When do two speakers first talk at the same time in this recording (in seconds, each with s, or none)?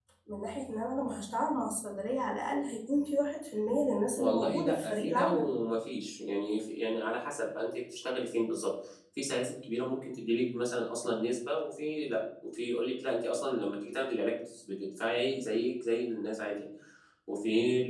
4.2 s